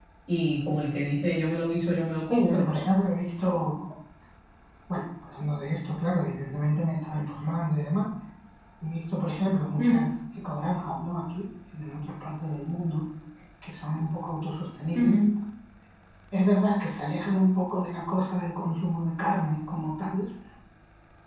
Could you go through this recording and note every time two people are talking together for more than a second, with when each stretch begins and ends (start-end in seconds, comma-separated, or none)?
none